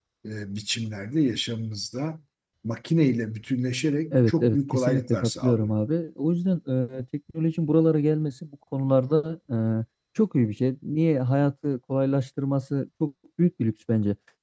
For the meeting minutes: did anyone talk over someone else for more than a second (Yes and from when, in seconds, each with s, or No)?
Yes, from 4.1 s